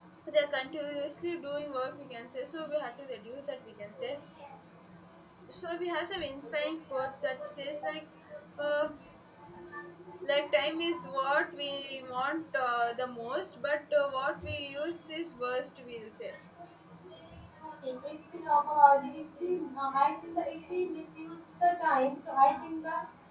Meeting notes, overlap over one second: none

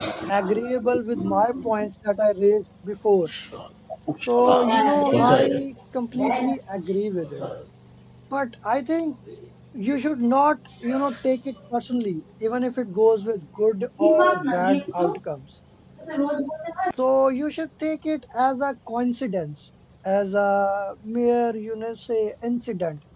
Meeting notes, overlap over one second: present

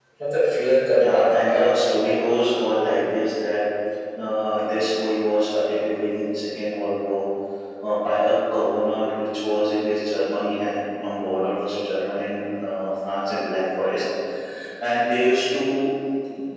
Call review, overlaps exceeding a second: present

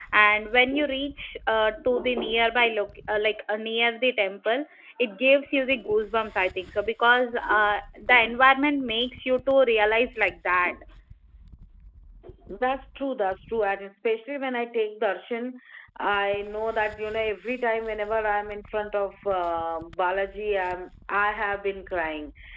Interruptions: none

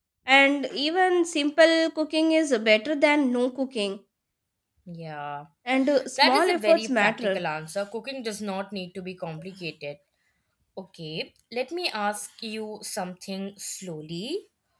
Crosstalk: present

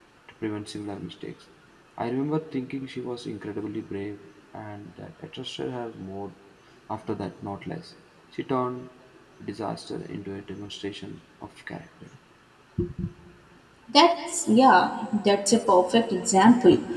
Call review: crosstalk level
none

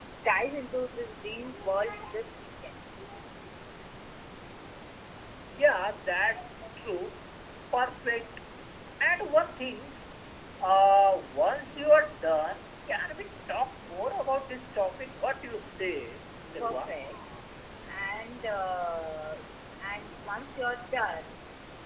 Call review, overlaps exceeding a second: none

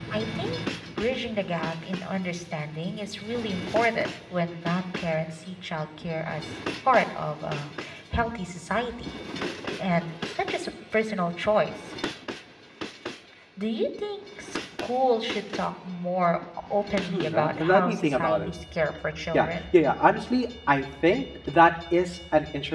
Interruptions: present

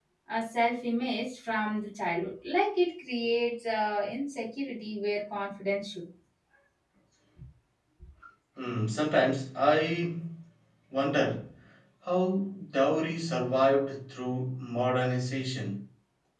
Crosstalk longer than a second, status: none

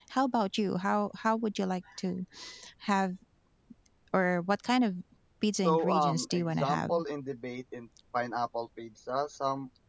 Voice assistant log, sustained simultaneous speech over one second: present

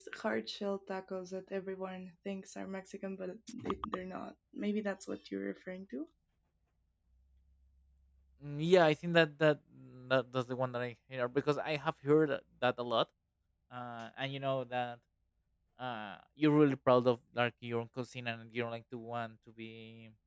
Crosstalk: none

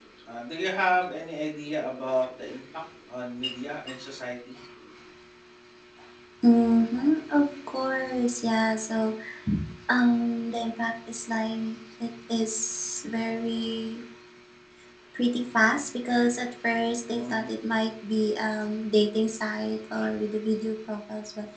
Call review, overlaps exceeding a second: none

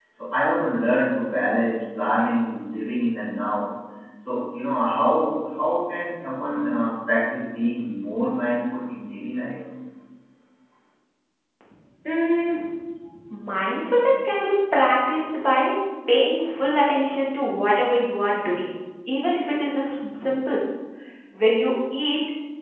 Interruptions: none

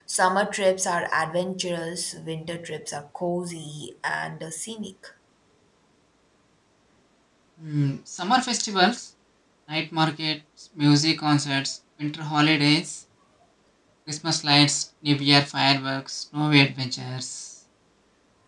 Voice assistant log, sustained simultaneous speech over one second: none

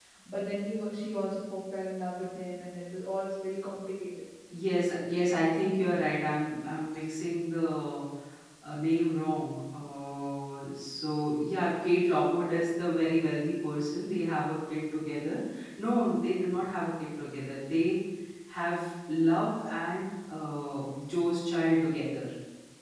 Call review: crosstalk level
none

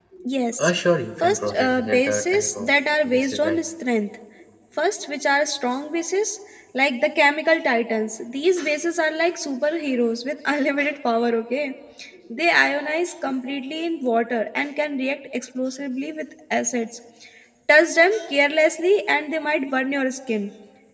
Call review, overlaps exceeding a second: present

